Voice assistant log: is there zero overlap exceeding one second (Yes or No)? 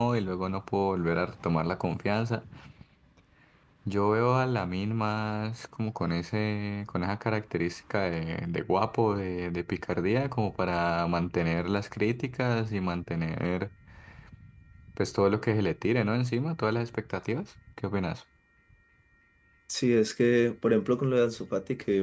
Yes